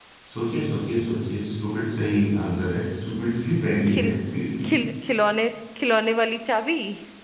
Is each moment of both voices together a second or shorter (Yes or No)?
Yes